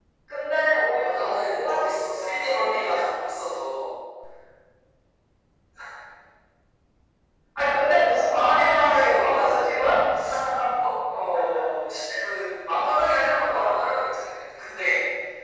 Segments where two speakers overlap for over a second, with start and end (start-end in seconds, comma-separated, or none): 0.9-3.2, 8.2-9.8